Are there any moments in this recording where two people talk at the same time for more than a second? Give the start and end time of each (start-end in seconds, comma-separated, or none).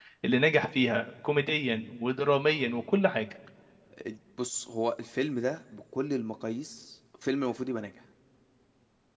none